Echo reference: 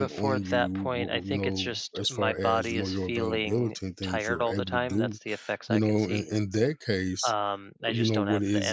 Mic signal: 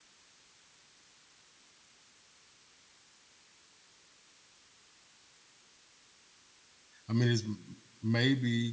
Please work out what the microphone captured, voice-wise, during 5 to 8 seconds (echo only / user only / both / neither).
user only